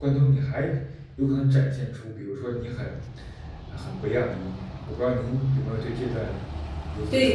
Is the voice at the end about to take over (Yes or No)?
Yes